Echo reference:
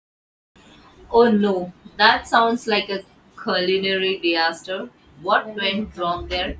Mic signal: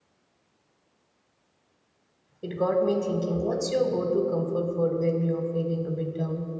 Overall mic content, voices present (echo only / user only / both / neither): user only